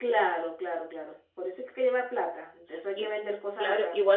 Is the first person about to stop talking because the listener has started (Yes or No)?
Yes